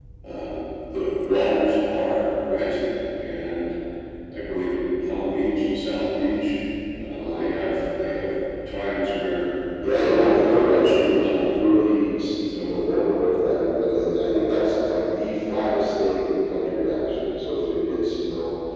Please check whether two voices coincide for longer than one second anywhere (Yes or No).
Yes